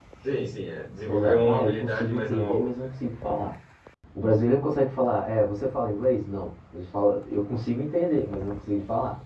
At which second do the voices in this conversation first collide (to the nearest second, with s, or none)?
1 s